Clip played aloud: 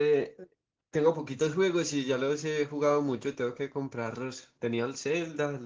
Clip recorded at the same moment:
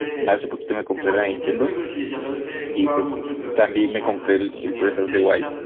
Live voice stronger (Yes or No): Yes